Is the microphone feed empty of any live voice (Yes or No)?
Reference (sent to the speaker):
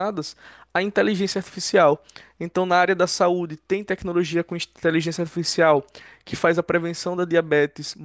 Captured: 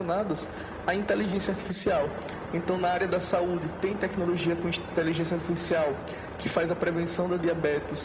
Yes